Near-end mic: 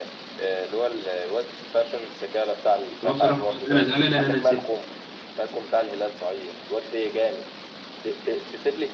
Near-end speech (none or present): present